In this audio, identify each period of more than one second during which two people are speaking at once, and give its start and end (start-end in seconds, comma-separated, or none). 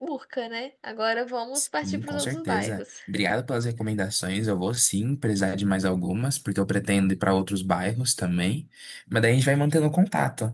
1.6-2.8